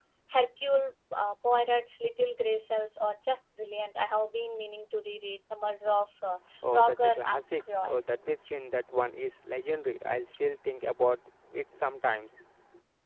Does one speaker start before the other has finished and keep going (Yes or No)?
Yes